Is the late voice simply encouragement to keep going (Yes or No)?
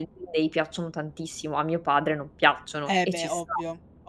No